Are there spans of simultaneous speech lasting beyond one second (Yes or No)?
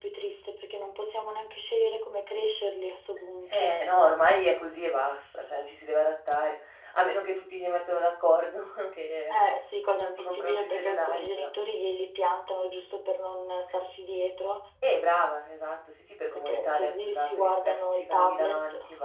Yes